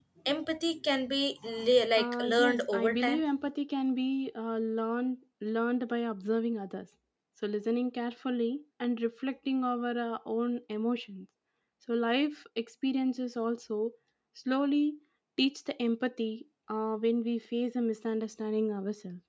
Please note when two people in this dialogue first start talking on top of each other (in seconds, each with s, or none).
2.0 s